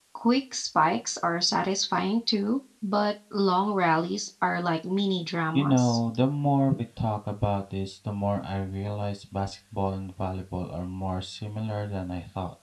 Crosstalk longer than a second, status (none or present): none